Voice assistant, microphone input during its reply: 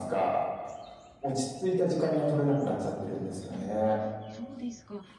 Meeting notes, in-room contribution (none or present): present